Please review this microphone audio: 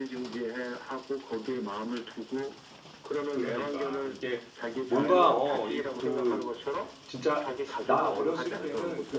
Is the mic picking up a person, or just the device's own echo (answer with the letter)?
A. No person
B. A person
B